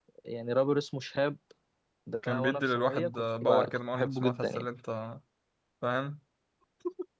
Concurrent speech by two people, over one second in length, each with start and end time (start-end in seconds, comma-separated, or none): 2.2-4.6